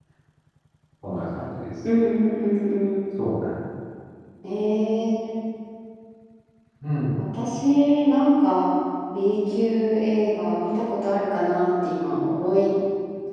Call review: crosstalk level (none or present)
none